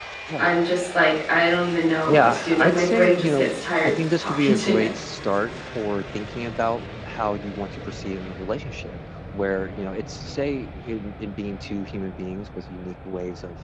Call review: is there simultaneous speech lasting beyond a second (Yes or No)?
Yes